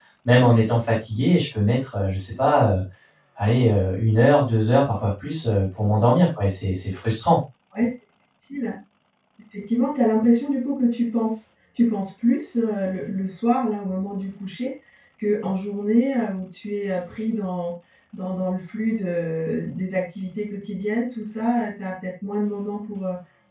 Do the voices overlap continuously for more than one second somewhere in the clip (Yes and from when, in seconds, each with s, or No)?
No